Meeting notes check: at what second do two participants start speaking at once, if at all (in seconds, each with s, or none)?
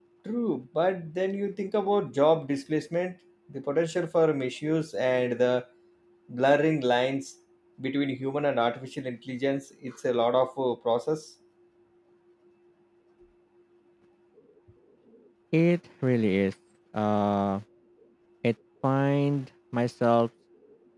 none